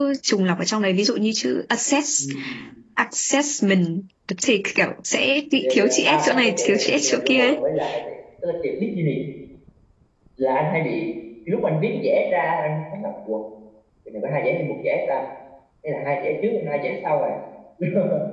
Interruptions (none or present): present